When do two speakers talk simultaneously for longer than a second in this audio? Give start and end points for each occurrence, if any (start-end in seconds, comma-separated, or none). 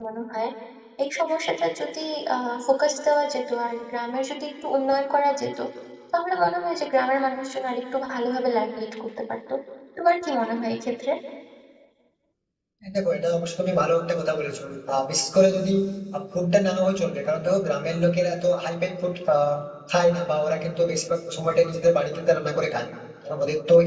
none